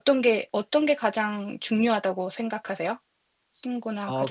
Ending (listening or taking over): taking over